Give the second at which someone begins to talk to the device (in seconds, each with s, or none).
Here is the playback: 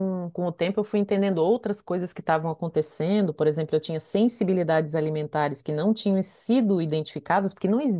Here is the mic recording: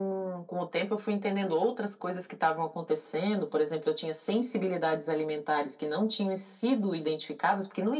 none